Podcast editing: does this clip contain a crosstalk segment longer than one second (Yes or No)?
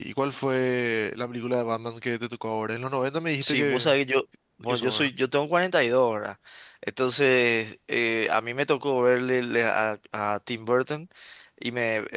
No